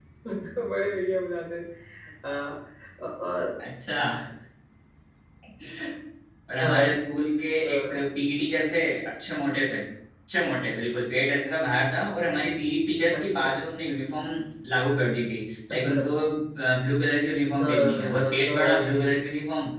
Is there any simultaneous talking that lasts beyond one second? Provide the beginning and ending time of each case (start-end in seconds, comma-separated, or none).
17.6-19.1